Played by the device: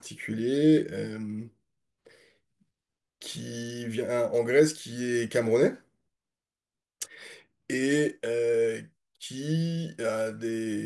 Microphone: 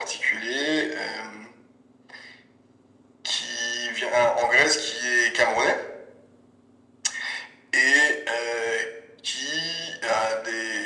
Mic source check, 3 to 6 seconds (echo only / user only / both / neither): echo only